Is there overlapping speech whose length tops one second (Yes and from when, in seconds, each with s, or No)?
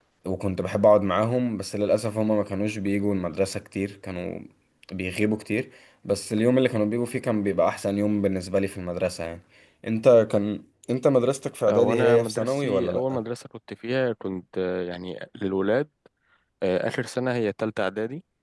Yes, from 11.7 s